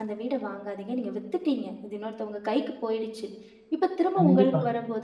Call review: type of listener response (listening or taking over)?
listening